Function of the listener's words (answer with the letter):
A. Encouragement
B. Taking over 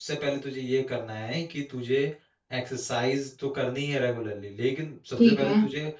A